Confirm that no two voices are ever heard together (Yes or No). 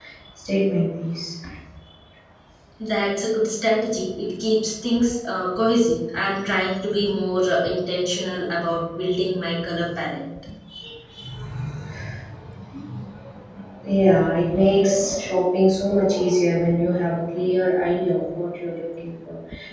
Yes